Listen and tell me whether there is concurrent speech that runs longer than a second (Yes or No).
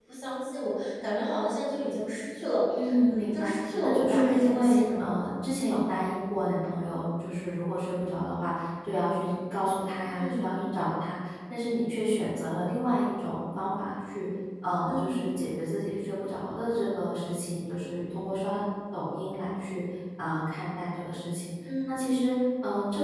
Yes